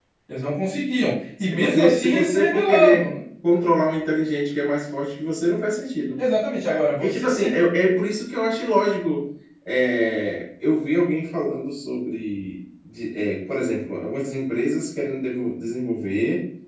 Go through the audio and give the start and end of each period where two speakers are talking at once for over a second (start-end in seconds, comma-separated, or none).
1.4-3.1